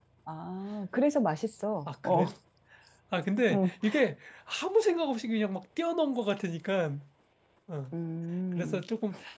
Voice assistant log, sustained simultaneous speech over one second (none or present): none